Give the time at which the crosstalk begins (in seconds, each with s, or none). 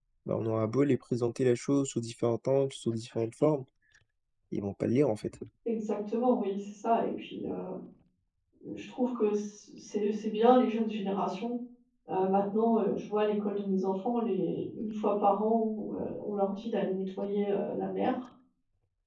none